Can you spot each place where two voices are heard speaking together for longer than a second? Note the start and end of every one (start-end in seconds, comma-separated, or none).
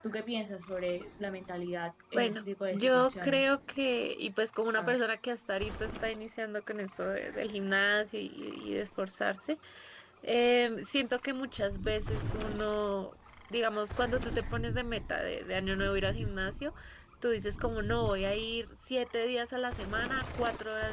2.1-3.5